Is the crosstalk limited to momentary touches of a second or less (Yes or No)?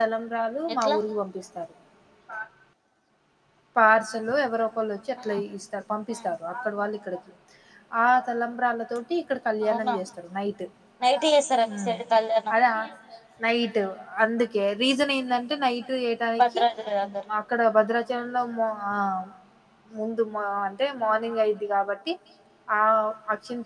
Yes